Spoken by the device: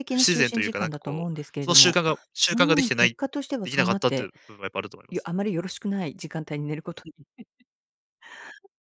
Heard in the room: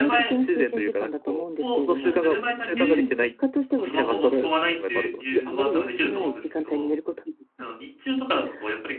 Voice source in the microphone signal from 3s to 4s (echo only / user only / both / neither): both